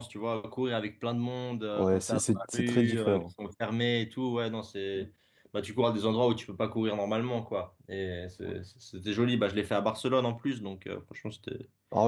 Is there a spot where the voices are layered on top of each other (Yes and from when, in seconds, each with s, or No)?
Yes, from 1.8 s